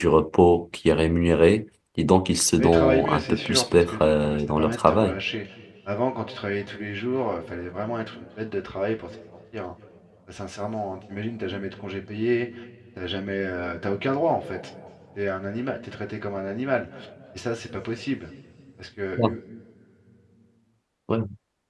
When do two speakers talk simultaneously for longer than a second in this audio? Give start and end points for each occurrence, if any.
2.6-5.2

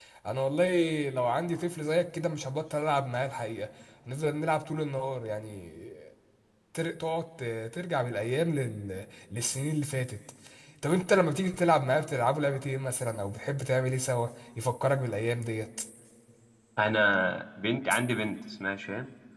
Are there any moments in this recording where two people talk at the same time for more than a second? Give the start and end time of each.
none

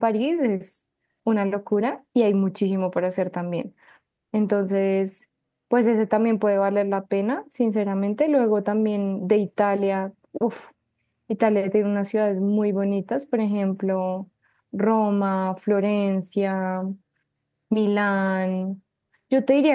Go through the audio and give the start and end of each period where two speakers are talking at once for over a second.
none

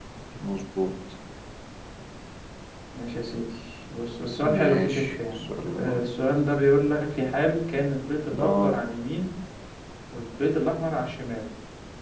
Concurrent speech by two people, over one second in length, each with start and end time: 4.4-6.0

